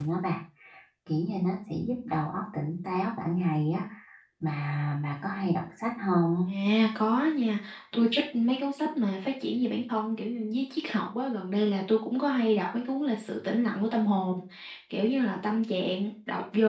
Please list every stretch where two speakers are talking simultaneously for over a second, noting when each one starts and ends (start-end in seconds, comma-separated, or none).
none